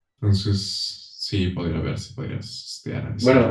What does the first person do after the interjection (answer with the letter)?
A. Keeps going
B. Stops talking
B